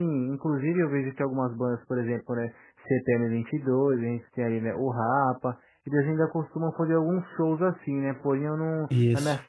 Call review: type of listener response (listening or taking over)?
listening